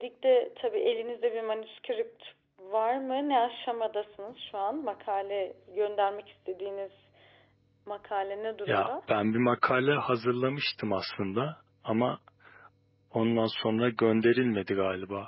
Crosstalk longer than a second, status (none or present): none